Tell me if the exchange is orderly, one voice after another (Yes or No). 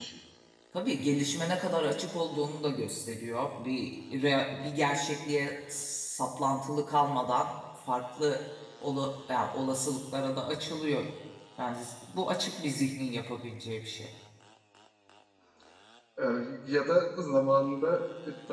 Yes